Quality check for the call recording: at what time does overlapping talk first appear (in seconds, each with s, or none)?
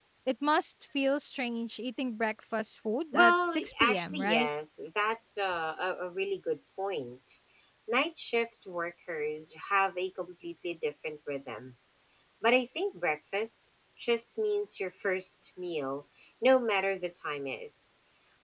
3.1 s